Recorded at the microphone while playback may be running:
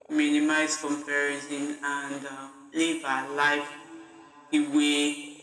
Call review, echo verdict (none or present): present